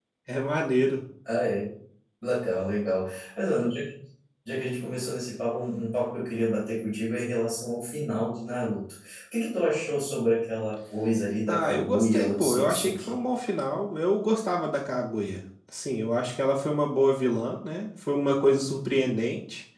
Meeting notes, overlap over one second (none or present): present